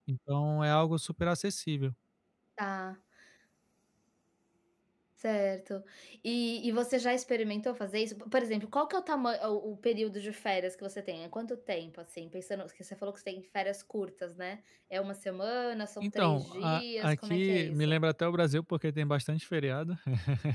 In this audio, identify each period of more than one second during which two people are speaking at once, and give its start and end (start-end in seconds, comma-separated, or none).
16.0-18.0